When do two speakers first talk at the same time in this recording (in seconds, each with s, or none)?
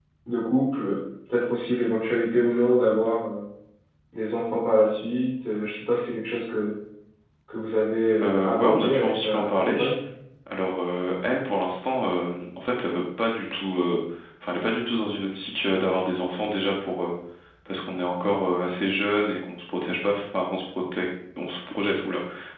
8.2 s